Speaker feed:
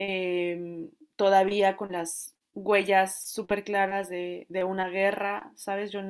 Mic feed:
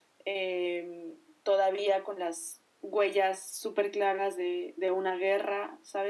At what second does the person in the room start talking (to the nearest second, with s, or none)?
none